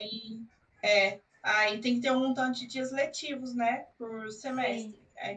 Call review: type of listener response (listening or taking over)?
listening